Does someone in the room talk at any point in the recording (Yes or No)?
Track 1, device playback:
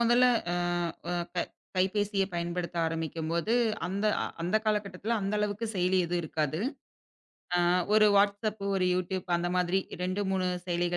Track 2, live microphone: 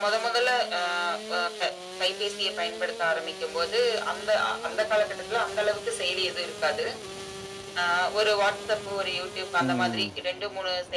Yes